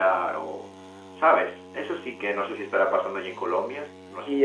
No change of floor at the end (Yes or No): No